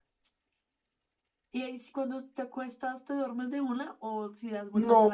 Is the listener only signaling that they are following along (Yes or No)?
No